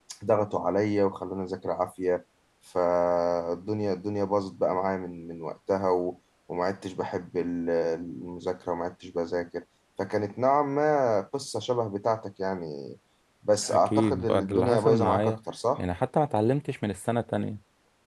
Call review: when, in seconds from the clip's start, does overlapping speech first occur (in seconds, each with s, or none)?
13.6 s